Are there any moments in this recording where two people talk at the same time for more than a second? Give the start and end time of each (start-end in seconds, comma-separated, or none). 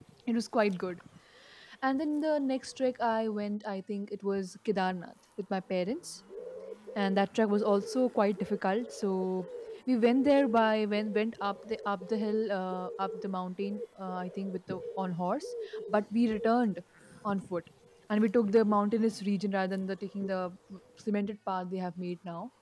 none